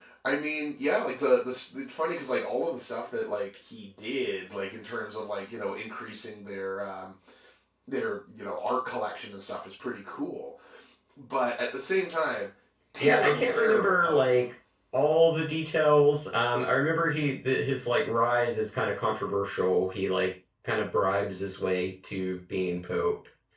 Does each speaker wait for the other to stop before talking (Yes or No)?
No